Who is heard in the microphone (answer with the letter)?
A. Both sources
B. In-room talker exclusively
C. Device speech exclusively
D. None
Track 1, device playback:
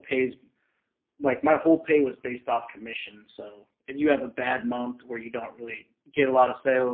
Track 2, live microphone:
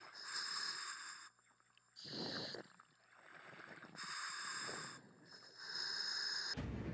D